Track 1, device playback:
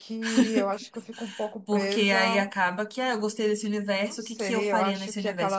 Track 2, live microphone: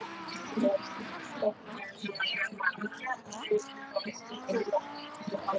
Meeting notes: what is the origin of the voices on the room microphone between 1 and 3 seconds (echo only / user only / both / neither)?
echo only